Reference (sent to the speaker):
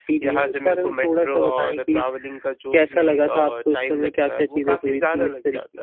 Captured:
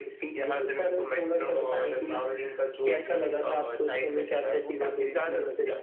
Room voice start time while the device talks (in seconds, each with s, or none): none